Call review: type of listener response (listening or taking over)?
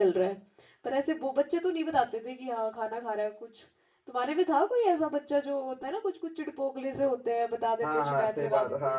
taking over